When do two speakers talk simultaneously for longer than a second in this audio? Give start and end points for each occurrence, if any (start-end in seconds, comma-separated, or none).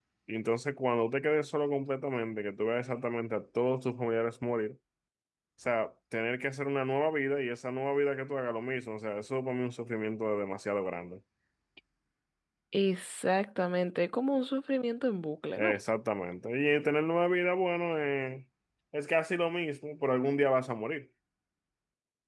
none